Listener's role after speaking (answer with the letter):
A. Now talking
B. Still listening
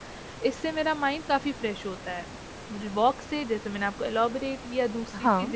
B